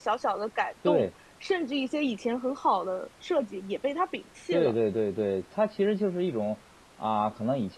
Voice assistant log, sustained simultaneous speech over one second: none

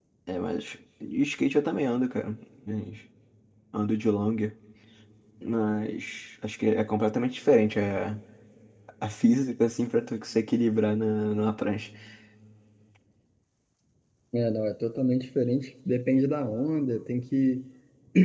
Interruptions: none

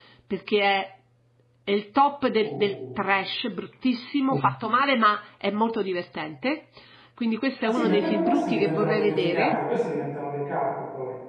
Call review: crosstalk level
present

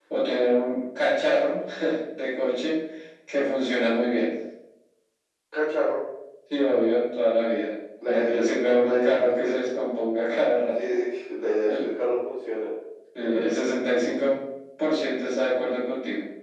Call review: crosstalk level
present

